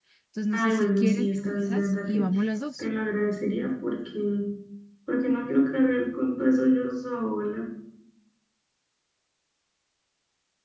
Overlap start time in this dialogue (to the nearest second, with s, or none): 1 s